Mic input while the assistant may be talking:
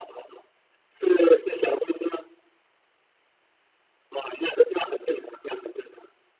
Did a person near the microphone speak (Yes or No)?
No